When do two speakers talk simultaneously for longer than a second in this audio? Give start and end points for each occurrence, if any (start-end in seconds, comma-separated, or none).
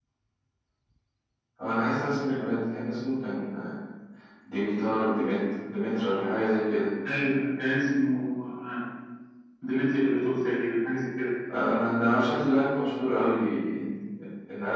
none